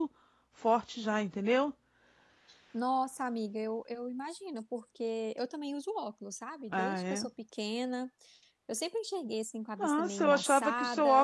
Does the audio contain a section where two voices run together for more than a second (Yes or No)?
Yes